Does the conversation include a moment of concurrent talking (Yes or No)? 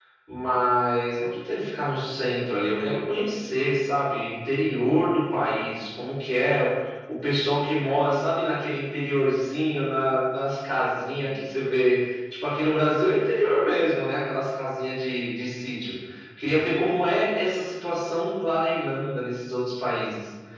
No